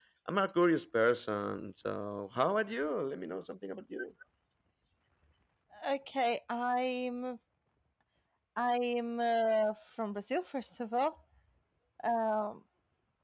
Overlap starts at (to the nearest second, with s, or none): none